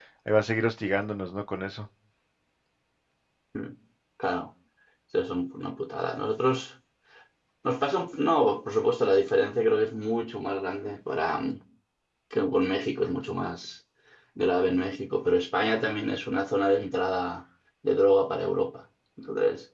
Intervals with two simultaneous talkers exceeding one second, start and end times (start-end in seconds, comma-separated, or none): none